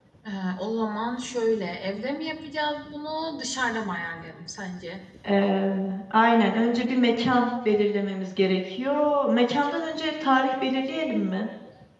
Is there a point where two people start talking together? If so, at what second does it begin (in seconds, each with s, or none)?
none